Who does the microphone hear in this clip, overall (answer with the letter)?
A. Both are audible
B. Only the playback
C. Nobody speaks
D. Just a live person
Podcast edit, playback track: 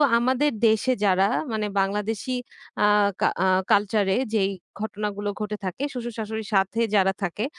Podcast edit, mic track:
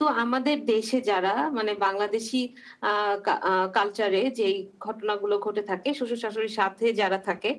B